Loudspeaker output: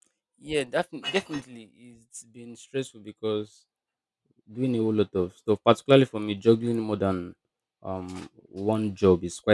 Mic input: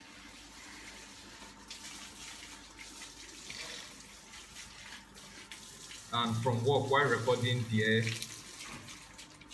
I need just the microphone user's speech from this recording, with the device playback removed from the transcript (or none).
And from work, while recording there,